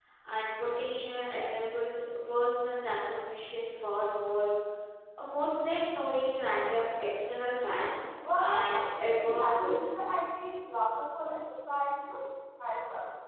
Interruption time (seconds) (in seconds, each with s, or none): 8.2 s